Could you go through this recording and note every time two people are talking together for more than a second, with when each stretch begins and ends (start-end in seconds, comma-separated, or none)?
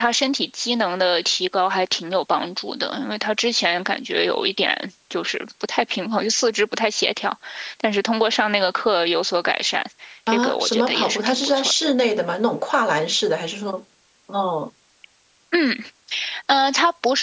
10.3-11.7